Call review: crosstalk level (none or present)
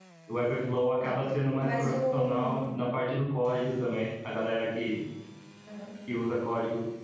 present